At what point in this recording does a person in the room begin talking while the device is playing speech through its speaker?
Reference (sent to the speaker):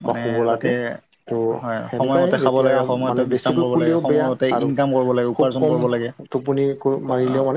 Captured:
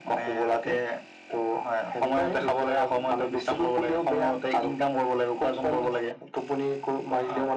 none

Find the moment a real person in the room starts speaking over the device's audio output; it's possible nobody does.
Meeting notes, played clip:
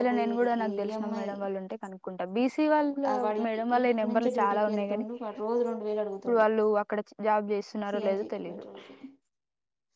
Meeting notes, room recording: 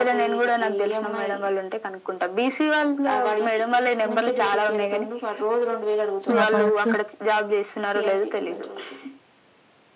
6.2 s

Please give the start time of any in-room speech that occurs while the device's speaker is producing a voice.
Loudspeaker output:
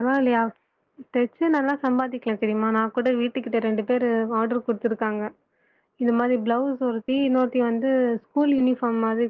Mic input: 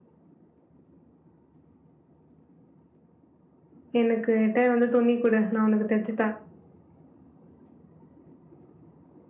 4.0 s

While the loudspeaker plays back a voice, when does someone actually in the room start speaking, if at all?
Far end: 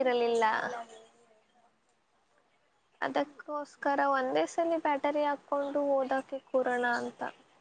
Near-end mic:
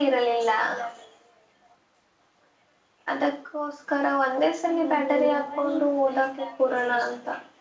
4.6 s

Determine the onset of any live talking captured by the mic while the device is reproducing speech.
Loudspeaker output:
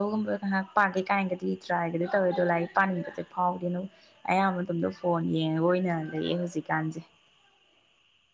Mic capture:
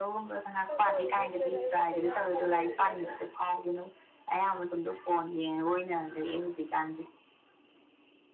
0.7 s

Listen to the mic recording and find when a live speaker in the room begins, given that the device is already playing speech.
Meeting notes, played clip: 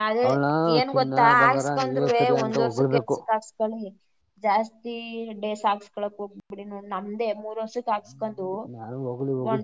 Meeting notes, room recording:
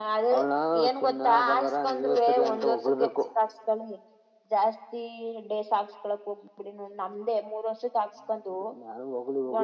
none

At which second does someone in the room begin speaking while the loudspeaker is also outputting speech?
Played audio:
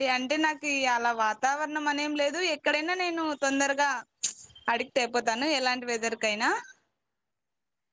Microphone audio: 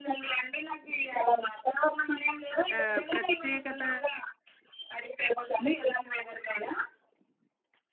2.8 s

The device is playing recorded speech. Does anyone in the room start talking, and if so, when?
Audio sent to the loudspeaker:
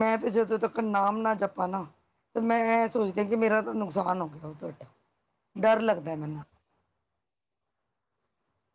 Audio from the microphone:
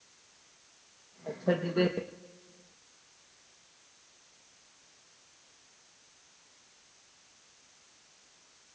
1.3 s

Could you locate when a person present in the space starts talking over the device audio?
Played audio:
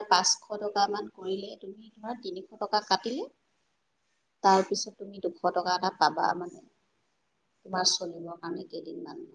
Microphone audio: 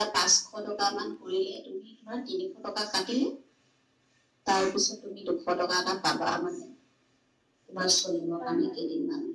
8.4 s

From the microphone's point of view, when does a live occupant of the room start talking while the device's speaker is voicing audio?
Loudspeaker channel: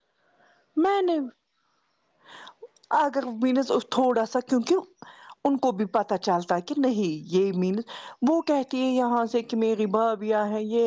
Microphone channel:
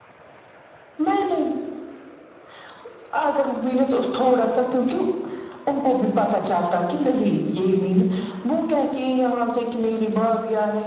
none

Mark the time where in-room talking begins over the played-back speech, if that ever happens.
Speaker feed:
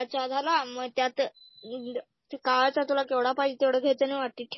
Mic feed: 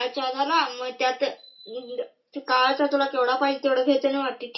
none

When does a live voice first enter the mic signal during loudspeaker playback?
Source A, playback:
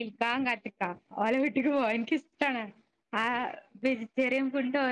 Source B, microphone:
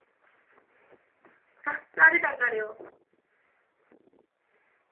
1.7 s

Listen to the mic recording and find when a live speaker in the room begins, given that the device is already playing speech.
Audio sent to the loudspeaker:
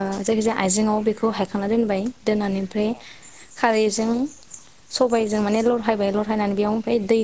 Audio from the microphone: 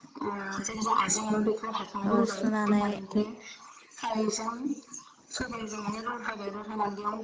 2.1 s

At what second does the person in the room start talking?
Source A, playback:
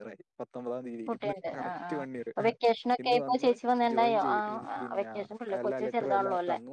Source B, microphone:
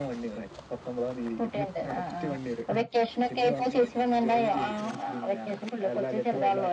none

